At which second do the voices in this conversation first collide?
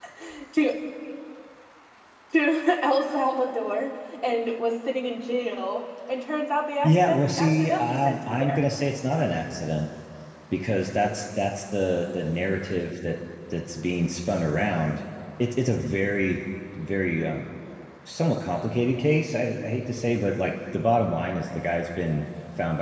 7 s

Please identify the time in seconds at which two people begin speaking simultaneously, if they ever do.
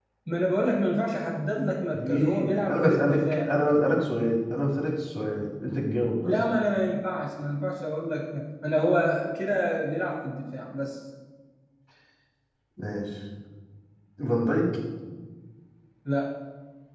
2 s

